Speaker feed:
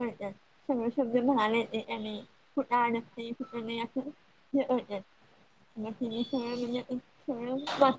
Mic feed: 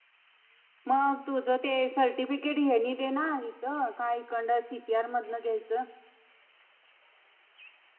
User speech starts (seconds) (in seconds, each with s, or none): 0.9 s